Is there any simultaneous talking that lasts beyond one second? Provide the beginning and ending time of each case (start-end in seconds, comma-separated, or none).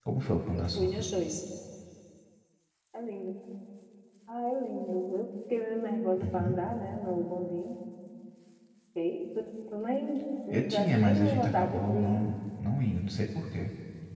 10.5-12.3